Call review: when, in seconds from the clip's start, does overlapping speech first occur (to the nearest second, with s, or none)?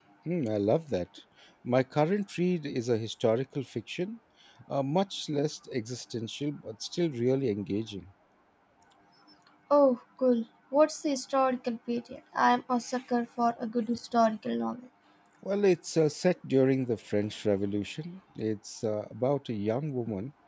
none